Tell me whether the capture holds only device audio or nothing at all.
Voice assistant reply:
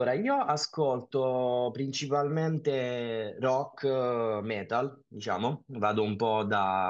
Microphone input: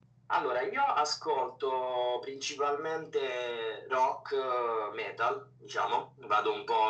Yes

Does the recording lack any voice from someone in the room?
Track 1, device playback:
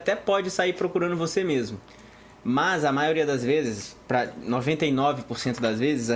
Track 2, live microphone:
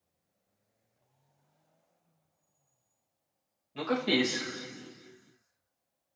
No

